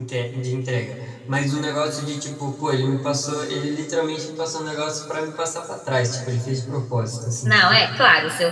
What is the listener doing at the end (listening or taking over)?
taking over